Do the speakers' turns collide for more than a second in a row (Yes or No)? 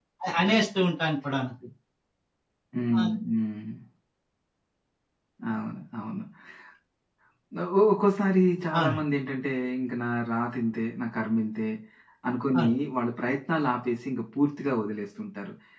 No